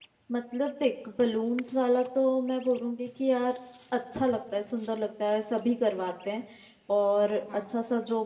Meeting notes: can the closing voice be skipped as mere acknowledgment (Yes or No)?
Yes